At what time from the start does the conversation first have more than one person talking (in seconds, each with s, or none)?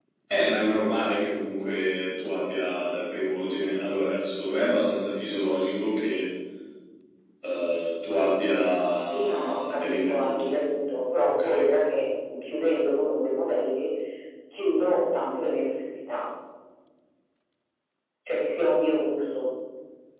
9.0 s